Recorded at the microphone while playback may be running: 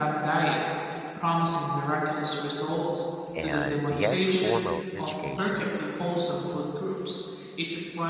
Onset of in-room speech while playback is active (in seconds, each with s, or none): 3.3 s